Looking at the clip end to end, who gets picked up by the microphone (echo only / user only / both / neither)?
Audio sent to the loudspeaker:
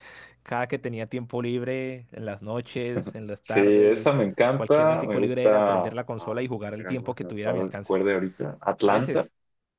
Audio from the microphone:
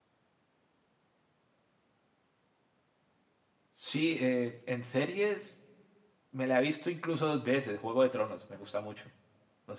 user only